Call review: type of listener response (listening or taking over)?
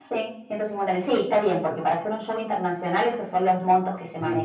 taking over